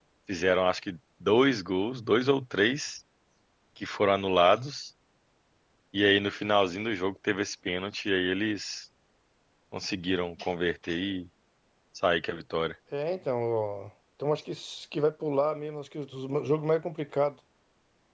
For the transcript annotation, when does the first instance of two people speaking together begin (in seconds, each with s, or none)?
none